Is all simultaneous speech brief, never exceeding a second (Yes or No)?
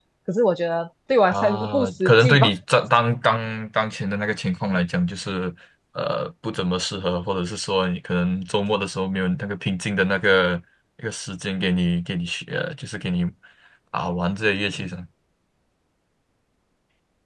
No